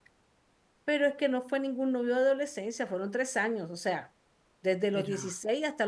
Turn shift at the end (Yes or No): No